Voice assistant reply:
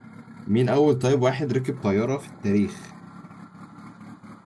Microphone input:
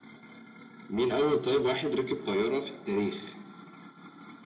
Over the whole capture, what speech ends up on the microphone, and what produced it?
echo only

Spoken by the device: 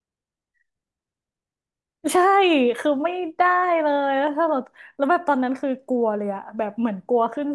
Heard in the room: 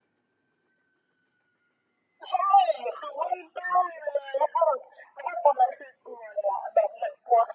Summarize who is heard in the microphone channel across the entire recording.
echo only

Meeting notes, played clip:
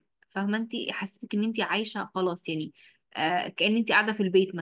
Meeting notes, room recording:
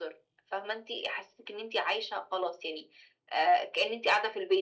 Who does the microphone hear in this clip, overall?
echo only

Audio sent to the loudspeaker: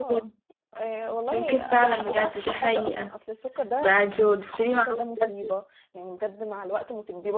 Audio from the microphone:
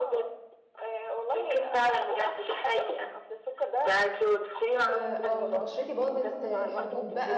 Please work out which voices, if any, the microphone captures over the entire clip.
both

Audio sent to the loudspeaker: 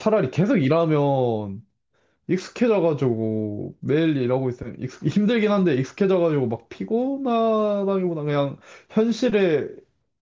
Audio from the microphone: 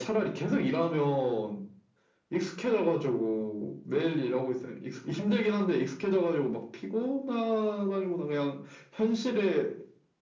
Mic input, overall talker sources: echo only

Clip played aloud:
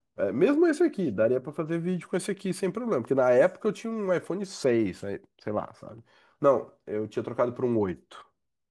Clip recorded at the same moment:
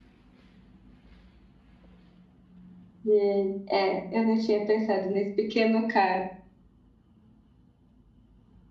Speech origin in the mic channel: user only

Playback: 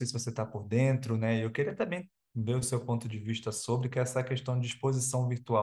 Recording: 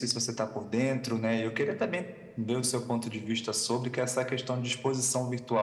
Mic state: echo only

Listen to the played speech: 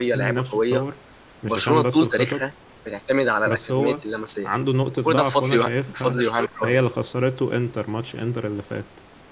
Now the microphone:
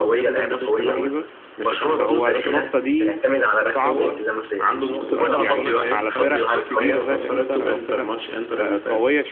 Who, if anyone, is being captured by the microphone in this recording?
both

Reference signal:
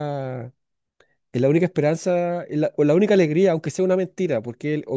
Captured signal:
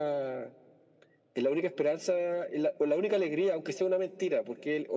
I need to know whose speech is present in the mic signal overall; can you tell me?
echo only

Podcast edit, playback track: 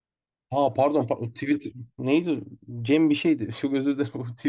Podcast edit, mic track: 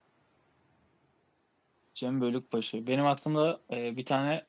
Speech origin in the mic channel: user only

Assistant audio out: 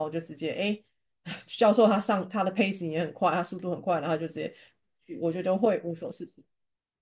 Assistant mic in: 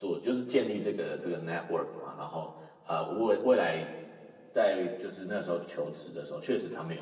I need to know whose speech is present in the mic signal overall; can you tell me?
user only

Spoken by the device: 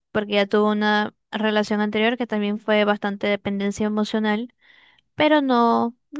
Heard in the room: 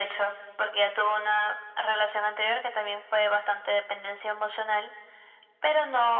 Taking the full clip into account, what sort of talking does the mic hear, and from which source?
echo only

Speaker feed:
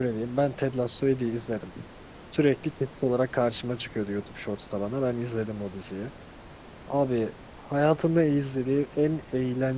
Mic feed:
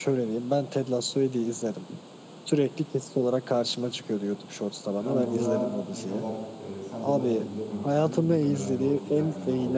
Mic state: both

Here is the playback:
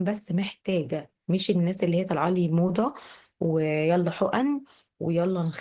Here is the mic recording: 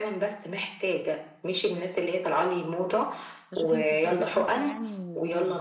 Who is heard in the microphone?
both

